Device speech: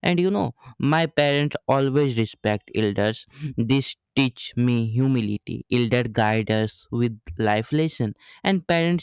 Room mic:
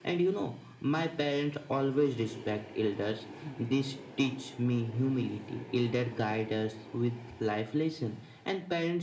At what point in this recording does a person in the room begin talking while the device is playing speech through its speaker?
none

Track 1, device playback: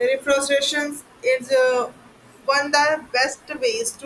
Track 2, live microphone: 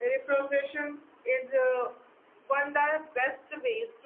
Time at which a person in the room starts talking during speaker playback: none

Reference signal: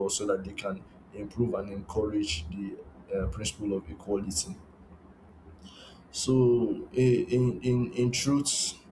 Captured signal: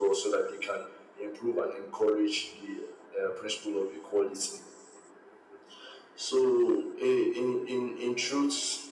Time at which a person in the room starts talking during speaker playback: none

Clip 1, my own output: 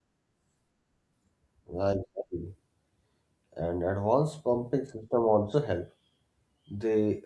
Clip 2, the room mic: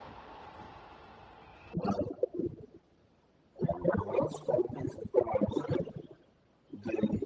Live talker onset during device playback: none

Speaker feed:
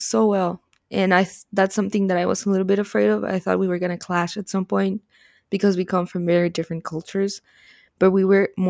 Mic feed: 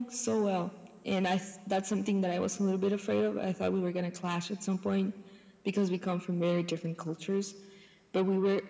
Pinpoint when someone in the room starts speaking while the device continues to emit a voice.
none

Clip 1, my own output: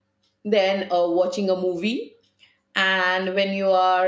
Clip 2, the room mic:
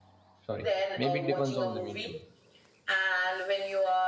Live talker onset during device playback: 0.5 s

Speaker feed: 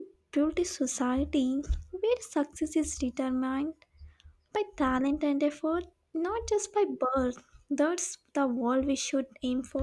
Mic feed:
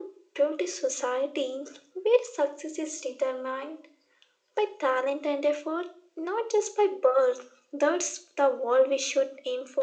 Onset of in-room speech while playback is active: none

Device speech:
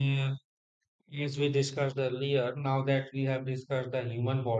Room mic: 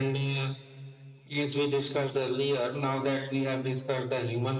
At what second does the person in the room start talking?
none

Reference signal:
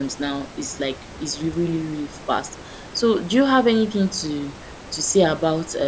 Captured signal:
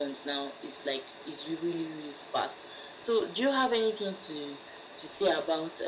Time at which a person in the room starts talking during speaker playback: none

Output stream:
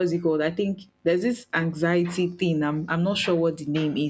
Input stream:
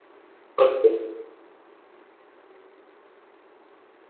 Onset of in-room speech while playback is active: 0.6 s

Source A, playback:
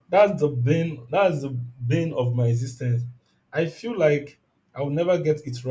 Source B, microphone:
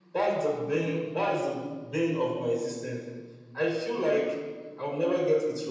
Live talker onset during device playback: none

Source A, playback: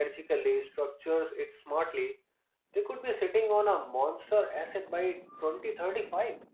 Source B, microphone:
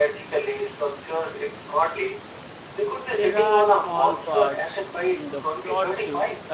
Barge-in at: 3.0 s

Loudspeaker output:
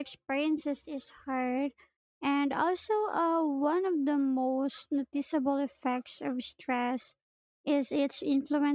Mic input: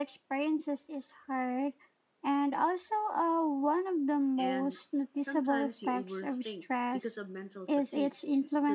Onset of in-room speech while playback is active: 4.3 s

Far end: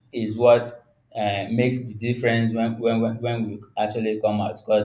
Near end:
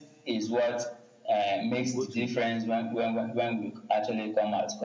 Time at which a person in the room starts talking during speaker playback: 1.8 s

